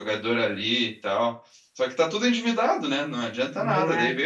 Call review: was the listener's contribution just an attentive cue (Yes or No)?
Yes